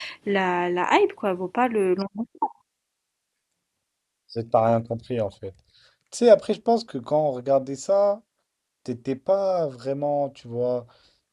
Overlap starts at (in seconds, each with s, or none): none